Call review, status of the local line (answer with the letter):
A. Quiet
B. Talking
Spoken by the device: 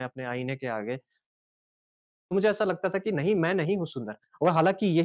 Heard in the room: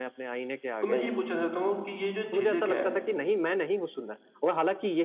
B